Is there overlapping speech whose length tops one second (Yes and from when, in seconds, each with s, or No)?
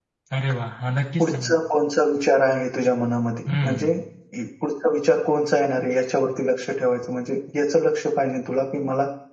No